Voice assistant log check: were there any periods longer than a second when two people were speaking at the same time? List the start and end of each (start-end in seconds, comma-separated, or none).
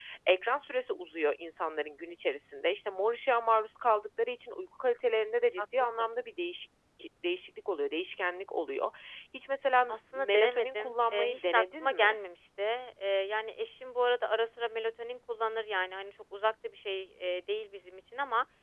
9.9-12.2